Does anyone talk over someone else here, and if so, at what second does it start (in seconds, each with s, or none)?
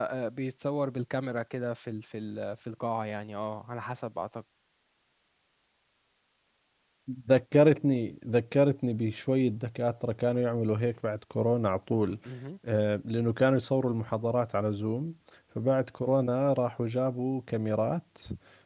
none